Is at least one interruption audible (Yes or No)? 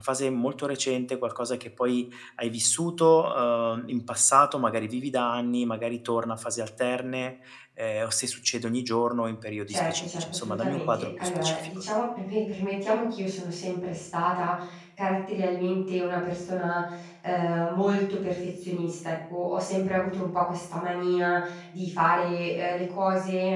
Yes